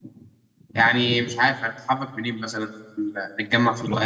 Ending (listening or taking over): taking over